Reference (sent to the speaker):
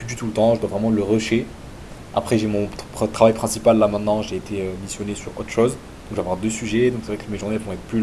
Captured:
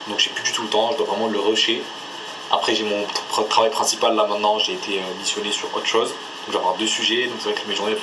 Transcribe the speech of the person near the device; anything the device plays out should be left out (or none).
none